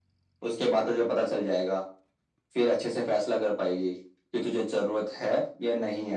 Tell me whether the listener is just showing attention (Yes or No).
Yes